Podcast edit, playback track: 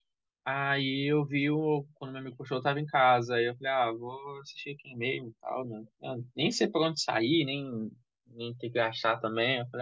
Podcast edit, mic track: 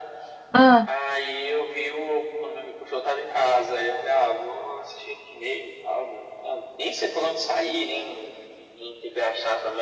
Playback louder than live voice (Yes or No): No